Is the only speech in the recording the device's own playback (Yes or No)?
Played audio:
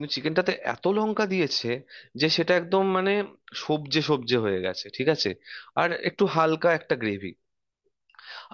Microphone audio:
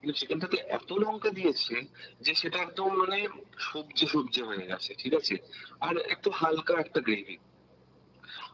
Yes